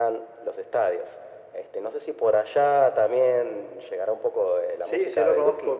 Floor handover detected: Yes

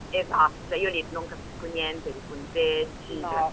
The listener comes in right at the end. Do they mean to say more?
No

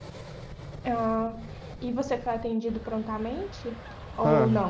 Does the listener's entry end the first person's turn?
Yes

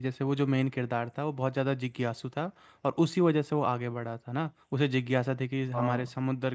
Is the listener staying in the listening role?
Yes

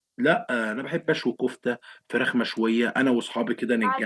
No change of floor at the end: Yes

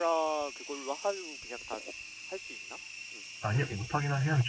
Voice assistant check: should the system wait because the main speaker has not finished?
No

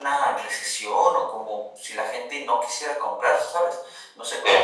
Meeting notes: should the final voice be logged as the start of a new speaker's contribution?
No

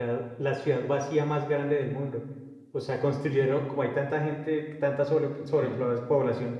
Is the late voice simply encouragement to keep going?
Yes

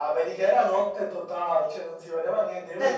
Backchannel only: No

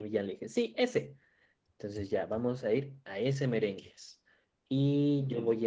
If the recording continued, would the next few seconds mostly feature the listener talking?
No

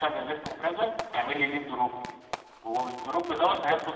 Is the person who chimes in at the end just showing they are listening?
Yes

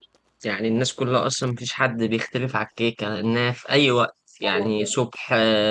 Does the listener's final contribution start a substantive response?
No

